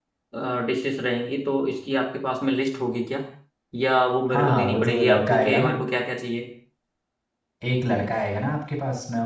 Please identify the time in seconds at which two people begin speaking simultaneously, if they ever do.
4.3 s

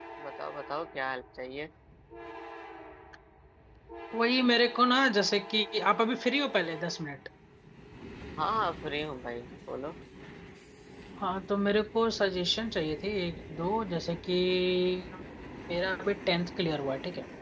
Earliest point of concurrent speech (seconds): none

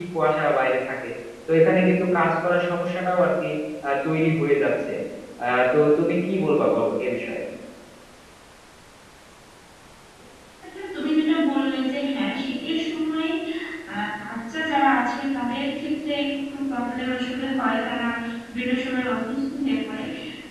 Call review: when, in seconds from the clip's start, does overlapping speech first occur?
none

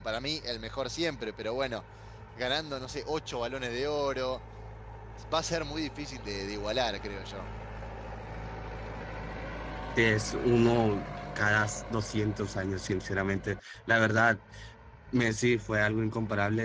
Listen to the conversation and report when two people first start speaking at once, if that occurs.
none

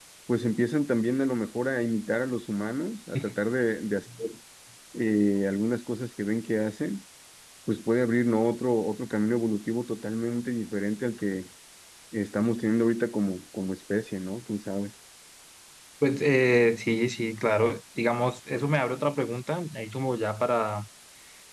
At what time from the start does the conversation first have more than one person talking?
none

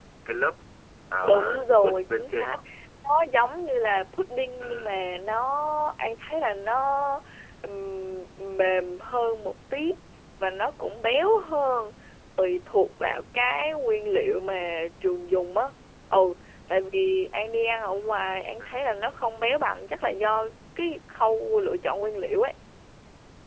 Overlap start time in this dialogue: 1.3 s

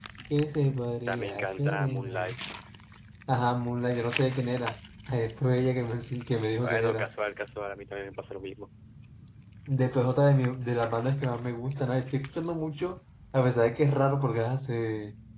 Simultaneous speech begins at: 1.1 s

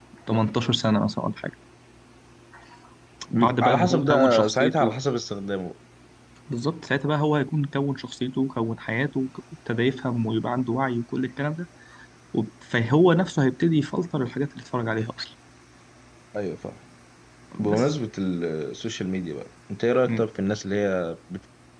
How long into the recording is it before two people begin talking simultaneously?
3.4 s

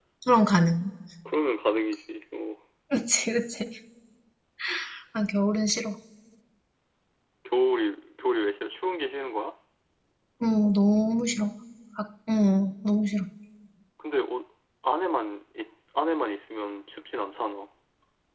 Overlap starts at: none

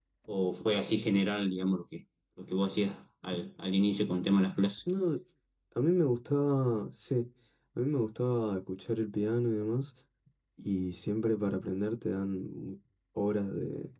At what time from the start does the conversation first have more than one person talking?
none

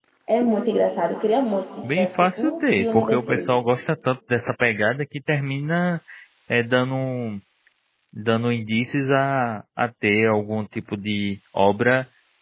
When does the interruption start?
1.8 s

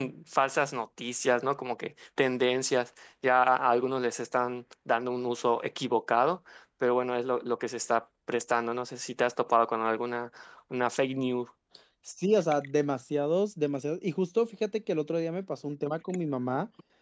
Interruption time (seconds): none

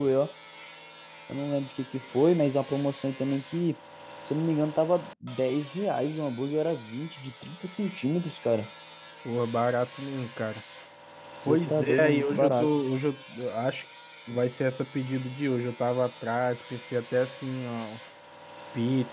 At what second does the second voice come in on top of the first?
11.5 s

